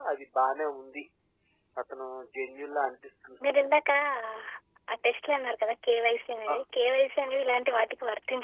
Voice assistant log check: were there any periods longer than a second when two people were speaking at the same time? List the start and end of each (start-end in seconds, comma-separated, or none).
none